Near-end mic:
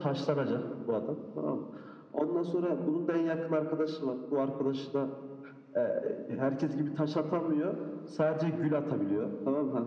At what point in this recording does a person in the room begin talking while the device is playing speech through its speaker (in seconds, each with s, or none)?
none